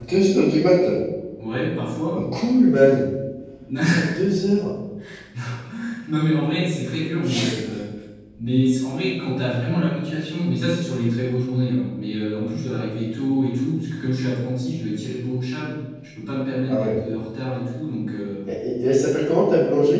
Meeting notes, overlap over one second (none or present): none